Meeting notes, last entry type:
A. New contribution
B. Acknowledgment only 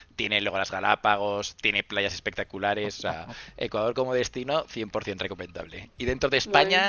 B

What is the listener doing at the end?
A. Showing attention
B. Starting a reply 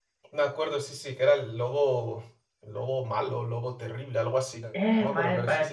B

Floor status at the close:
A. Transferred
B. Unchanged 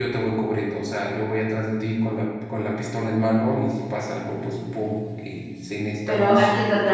A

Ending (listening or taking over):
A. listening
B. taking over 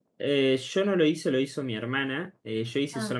A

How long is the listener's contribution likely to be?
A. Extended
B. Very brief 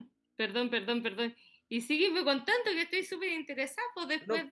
B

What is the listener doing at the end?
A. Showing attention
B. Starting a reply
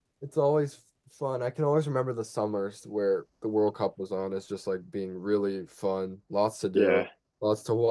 A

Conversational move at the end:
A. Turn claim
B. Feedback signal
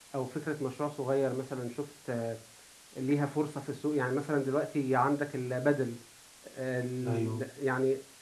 B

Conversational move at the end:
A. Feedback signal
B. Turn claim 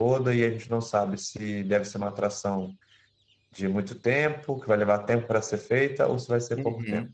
B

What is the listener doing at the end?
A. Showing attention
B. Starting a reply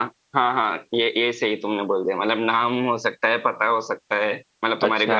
B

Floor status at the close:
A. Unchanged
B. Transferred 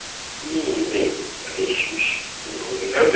B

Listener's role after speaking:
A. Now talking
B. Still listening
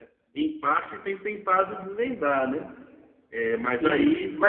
A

